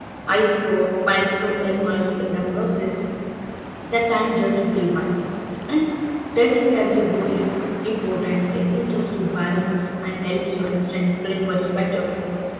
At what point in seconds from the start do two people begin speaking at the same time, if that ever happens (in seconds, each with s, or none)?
none